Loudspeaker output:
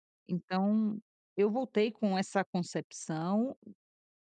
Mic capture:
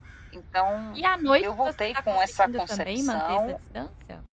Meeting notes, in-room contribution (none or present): present